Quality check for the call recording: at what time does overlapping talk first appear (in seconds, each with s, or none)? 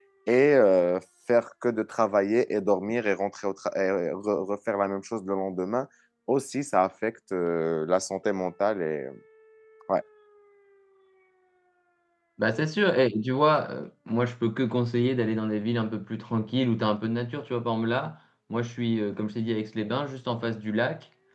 none